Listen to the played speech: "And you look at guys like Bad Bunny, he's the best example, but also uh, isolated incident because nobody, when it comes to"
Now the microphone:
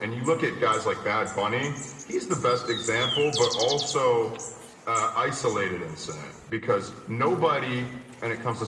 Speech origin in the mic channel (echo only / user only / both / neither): echo only